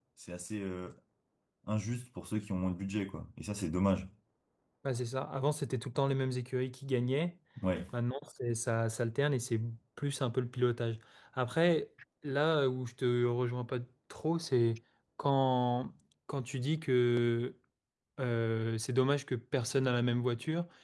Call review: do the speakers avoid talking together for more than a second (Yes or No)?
Yes